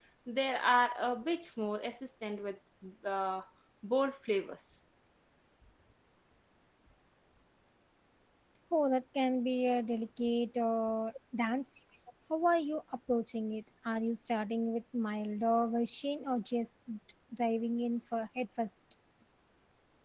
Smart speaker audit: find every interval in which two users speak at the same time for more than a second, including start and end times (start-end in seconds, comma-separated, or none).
none